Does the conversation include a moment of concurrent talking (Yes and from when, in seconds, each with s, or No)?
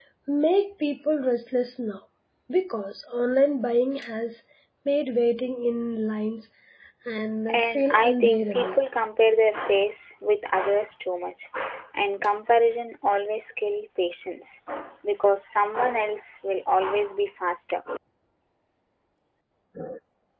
Yes, from 7.5 s